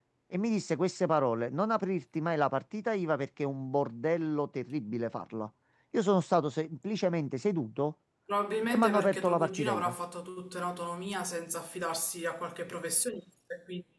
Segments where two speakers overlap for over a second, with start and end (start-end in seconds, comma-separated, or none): 8.7-9.9